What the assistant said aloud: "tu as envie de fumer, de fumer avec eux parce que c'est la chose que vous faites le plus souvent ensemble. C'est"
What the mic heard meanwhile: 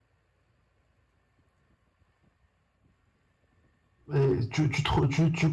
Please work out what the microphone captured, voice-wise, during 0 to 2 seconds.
neither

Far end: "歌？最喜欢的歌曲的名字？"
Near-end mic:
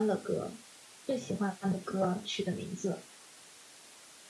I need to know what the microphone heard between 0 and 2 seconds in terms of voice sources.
echo only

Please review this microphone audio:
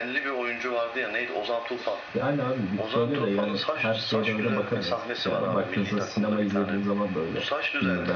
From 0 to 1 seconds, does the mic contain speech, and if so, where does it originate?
echo only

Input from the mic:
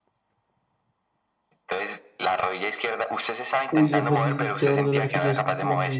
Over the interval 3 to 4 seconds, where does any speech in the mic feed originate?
both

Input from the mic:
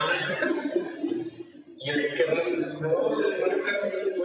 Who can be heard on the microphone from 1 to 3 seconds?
echo only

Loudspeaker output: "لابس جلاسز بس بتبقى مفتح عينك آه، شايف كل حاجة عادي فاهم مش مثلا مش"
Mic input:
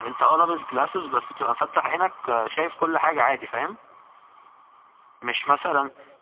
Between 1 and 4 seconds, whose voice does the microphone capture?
echo only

